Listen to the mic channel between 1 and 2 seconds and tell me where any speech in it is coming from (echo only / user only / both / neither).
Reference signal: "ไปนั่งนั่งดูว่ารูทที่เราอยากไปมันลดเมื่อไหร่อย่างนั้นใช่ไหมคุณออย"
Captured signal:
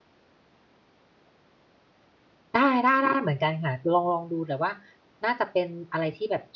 neither